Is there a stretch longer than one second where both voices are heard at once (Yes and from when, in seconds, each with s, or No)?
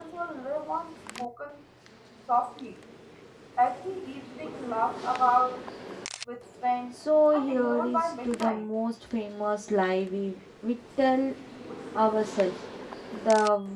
Yes, from 7.3 s